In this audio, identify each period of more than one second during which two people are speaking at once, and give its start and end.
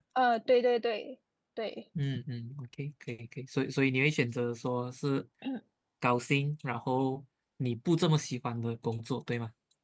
none

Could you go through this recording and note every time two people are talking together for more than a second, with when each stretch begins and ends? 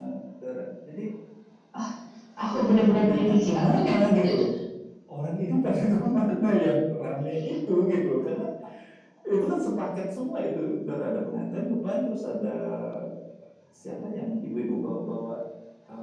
3.0-4.4

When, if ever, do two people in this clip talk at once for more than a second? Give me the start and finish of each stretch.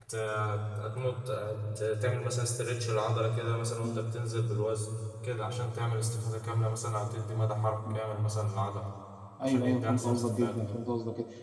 9.4-10.6

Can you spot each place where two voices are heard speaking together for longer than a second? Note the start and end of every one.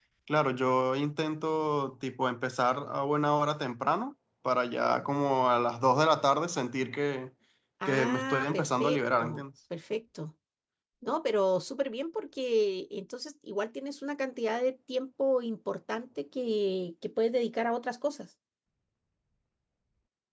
7.8-9.4

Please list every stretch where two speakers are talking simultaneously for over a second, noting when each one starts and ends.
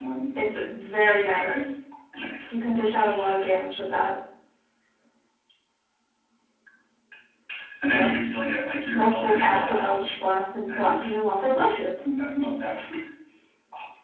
8.9-10.1

